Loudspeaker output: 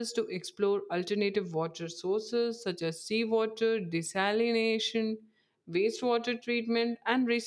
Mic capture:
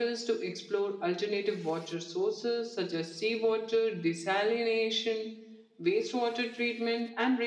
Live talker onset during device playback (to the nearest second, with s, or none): none